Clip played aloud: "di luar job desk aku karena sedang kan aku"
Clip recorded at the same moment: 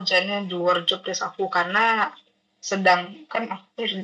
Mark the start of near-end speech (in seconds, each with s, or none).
none